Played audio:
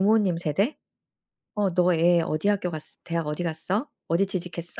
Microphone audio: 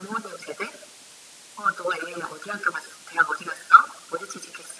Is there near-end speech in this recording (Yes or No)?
No